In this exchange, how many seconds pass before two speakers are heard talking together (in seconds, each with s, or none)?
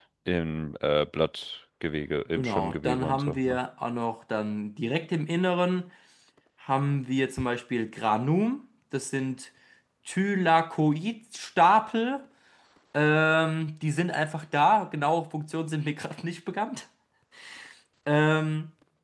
2.4 s